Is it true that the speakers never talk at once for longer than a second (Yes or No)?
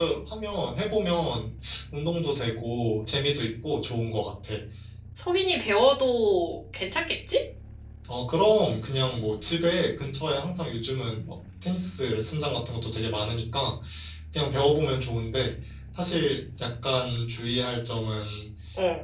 Yes